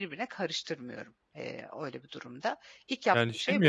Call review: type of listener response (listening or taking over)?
taking over